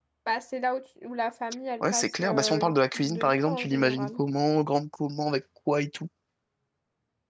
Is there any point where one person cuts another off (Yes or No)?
Yes